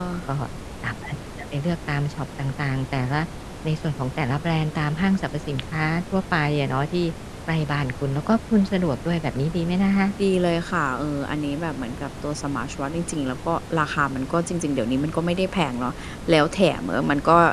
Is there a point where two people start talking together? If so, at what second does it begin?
none

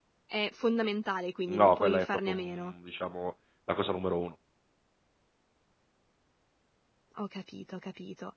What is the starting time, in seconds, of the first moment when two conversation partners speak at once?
1 s

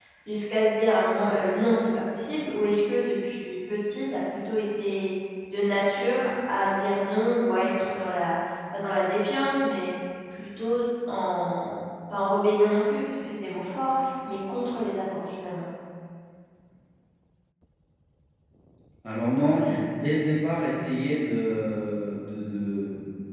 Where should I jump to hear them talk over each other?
none

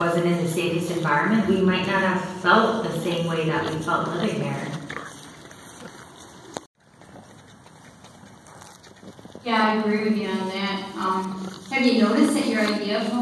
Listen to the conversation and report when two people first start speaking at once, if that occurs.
none

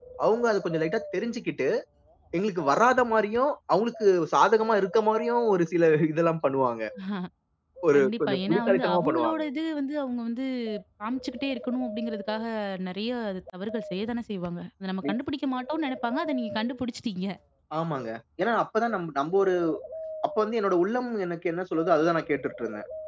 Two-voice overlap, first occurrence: 8 s

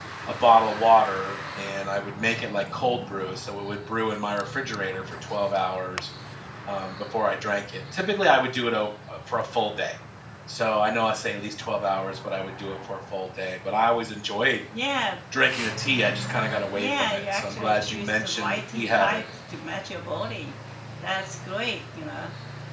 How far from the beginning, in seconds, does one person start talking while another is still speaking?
17 s

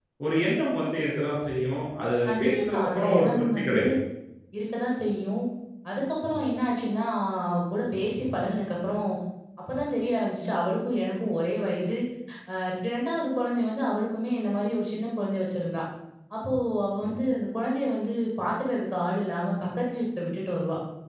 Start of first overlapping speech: 2 s

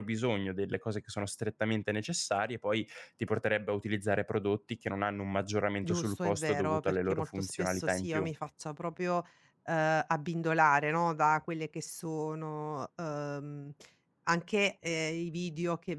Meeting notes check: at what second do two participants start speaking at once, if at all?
6 s

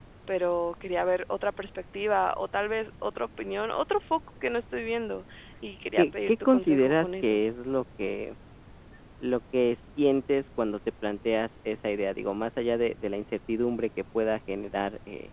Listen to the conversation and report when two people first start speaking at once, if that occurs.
6 s

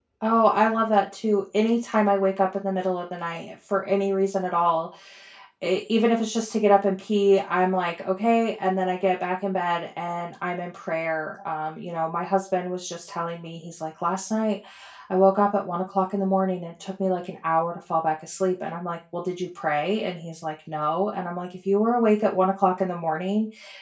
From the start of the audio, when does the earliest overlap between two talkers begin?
none

